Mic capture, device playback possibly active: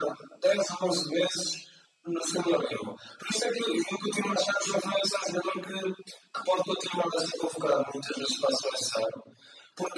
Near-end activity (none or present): none